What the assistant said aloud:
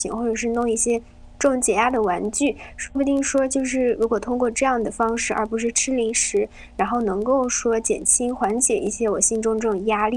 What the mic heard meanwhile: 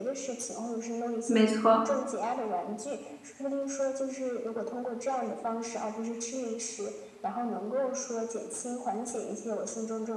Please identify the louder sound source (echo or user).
user